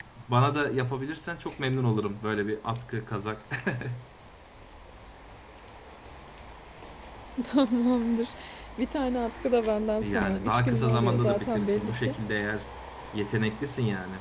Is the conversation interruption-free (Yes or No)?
No